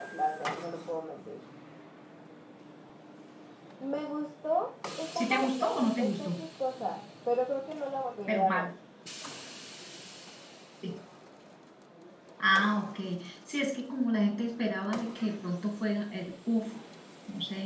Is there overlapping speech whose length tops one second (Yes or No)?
Yes